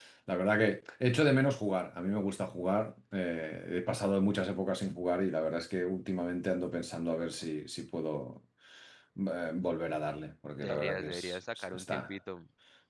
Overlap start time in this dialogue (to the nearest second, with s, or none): 11 s